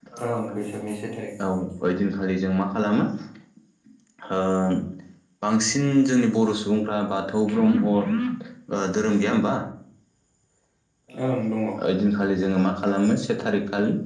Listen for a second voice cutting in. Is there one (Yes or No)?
No